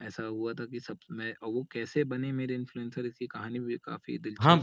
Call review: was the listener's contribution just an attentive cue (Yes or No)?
No